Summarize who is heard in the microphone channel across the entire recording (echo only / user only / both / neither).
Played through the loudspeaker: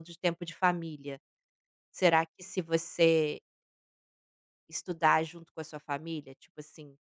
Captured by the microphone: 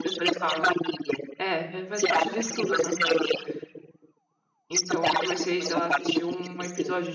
both